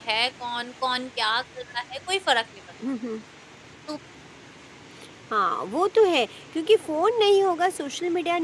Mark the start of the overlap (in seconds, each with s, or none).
none